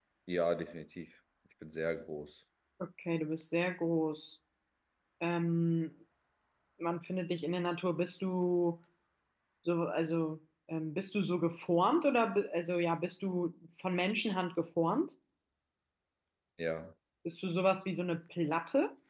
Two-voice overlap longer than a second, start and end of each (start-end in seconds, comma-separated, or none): none